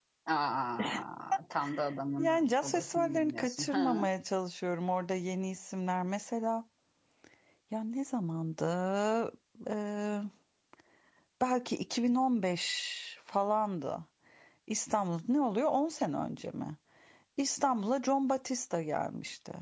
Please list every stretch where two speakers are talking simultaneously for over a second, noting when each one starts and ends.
2.2-4.1

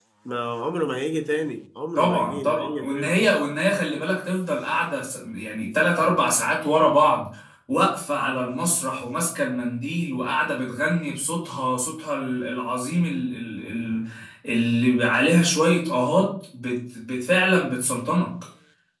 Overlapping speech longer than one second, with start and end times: 2.0-3.2

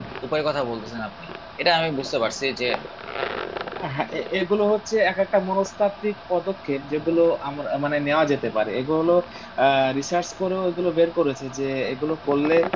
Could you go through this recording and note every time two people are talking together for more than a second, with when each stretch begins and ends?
none

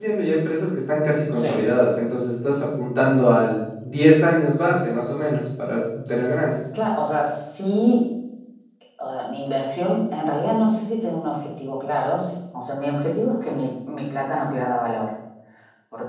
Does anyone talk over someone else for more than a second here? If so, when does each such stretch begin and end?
none

